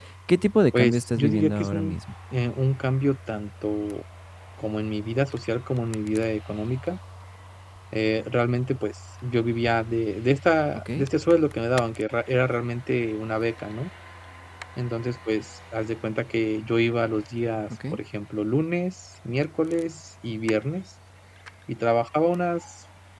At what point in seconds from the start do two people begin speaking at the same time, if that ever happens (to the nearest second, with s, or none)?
1 s